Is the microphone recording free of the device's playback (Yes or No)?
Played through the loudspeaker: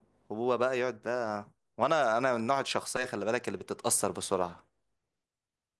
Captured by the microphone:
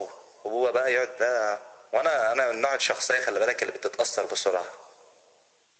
No